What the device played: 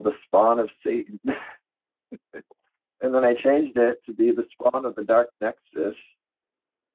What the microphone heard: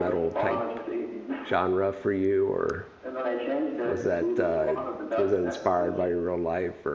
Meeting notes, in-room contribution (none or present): present